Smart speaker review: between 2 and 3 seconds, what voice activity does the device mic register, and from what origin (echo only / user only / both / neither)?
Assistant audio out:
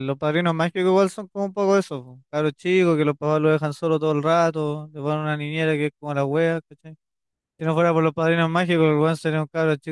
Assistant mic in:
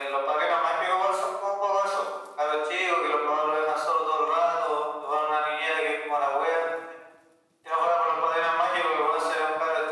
echo only